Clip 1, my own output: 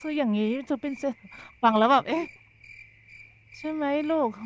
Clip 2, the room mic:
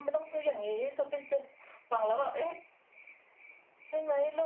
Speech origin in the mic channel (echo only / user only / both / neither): echo only